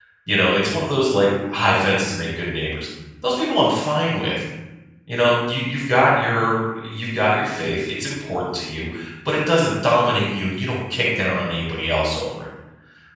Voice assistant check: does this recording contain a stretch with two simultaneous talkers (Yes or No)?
No